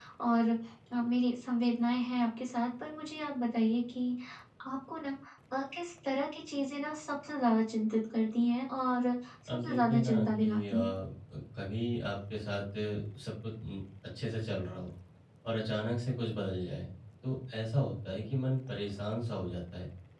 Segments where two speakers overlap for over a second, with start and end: 9.5-10.9

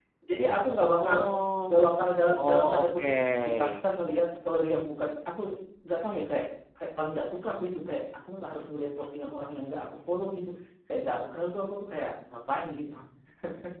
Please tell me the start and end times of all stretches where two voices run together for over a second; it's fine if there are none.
2.4-3.7

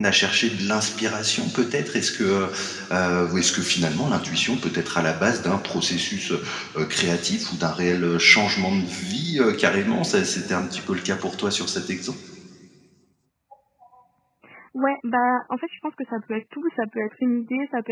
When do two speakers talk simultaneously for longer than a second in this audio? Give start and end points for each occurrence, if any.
none

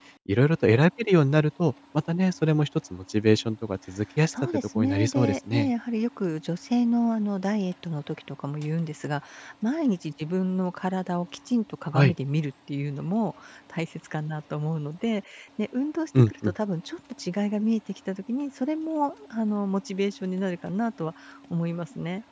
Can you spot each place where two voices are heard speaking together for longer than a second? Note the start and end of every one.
4.3-5.7

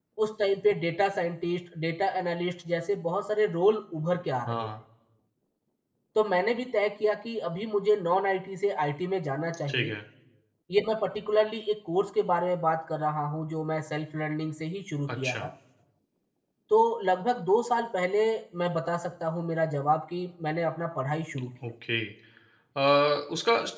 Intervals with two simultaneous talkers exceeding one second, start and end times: none

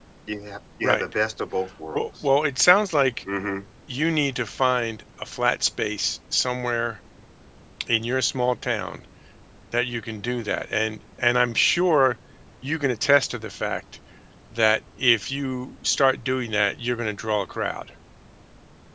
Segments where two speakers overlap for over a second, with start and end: none

